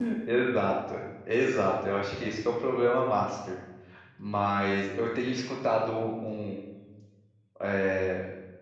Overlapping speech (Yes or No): No